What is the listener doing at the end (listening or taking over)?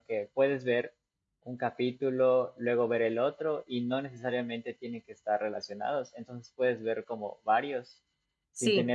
listening